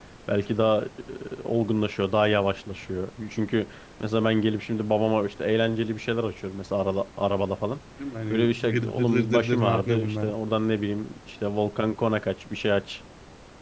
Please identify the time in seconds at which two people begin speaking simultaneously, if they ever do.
8 s

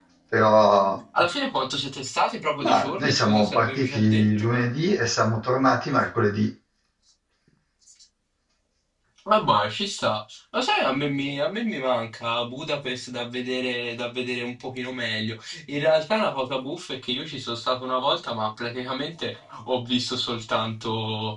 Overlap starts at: 3 s

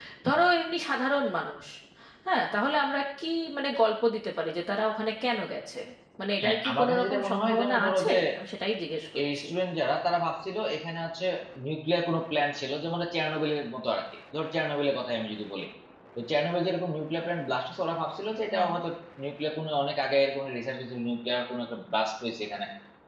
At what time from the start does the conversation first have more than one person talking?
6 s

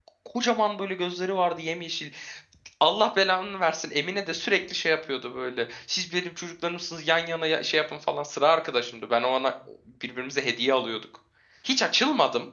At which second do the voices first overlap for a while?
none

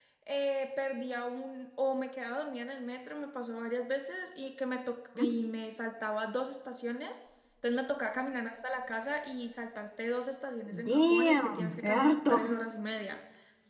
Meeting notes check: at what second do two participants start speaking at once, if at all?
11 s

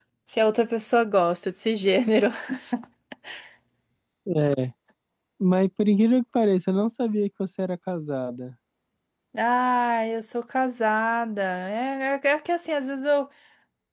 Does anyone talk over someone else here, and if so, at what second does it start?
none

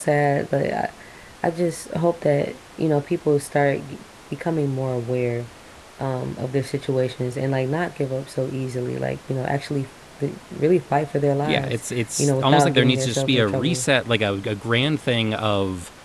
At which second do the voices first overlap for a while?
11 s

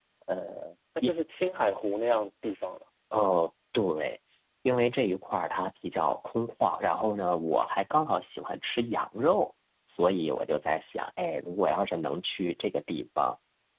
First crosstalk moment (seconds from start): none

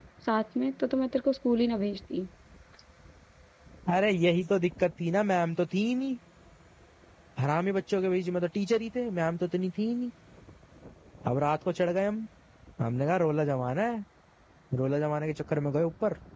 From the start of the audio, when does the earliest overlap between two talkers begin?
none

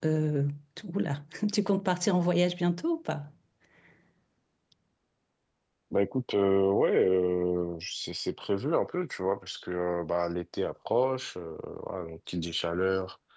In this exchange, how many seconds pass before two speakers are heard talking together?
none

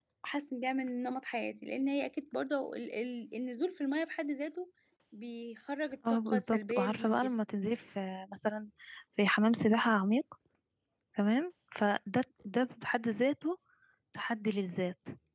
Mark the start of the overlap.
6 s

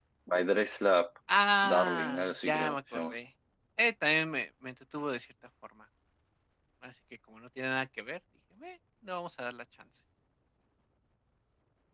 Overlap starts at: 2 s

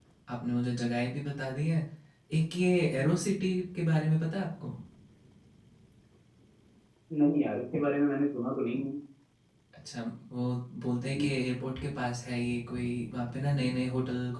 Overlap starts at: none

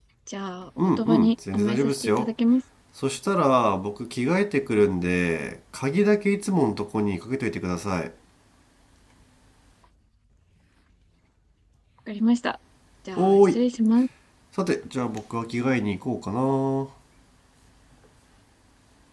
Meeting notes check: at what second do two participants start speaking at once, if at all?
1 s

